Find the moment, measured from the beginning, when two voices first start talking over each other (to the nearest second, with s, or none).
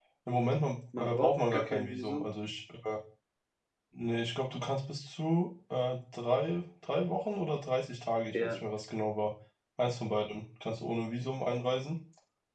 1 s